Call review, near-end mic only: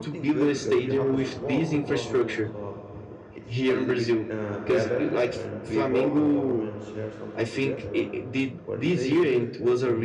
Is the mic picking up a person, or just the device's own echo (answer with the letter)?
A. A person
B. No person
A